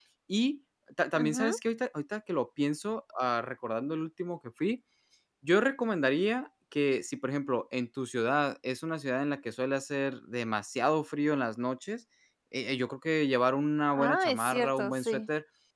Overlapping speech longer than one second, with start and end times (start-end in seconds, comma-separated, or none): 13.9-15.2